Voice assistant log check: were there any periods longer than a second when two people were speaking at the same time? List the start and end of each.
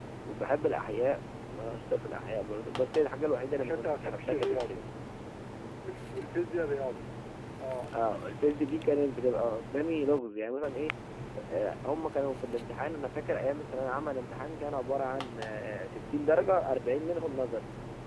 3.6-4.8

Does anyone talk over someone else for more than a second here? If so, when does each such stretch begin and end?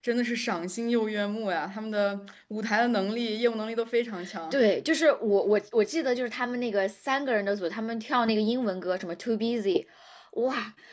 none

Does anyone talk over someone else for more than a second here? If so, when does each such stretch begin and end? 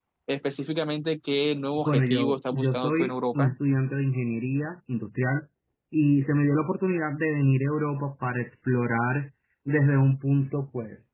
1.8-3.6

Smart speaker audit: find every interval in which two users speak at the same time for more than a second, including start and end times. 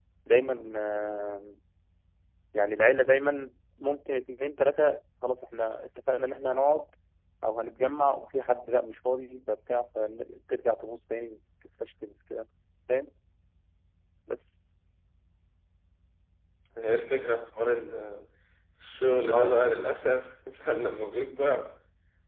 none

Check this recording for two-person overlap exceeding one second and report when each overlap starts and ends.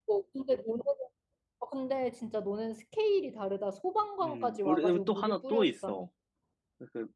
4.2-6.1

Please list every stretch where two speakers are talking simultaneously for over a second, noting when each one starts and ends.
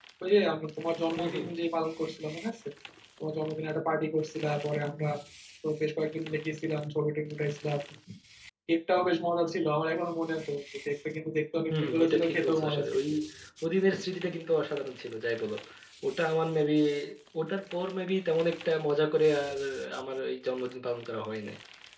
11.7-13.0

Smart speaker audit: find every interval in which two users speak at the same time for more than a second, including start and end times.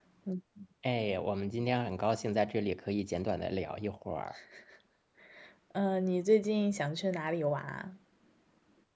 none

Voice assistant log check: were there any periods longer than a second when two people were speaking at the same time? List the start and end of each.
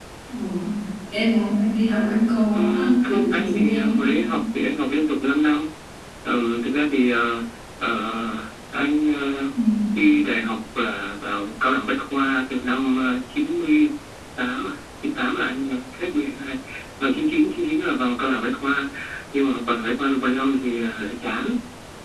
2.5-4.2

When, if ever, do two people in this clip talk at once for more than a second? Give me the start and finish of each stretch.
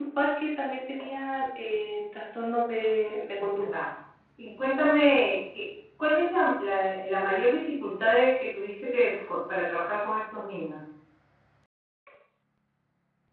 none

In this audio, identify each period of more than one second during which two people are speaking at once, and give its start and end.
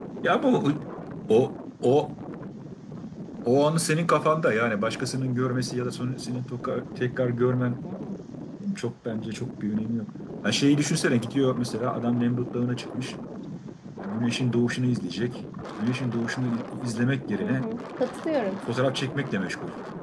none

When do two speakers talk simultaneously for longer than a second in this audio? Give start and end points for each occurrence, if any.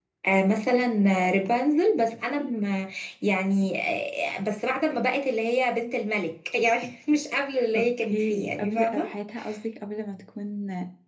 7.8-9.1

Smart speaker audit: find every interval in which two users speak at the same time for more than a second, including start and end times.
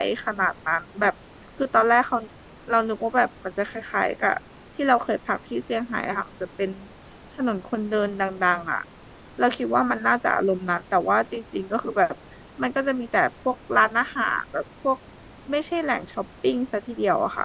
none

